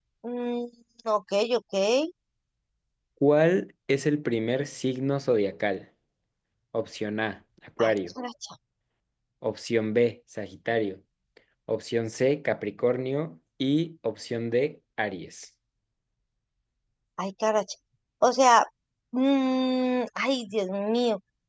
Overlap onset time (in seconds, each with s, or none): none